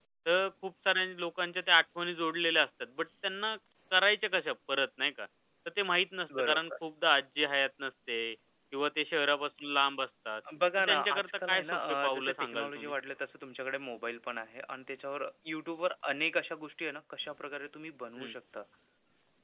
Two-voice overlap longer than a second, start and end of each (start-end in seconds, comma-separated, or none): 10.8-12.9